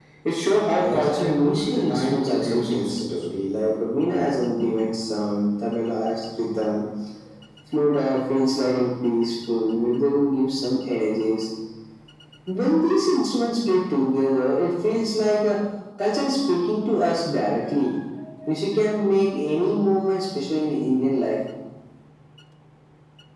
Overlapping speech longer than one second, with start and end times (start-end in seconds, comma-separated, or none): 0.8-3.0